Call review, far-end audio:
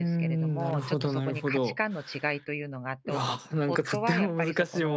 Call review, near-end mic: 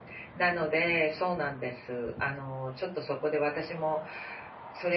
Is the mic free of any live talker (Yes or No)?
No